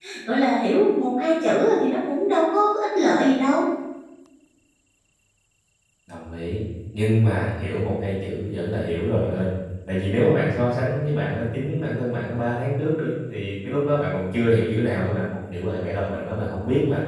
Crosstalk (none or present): none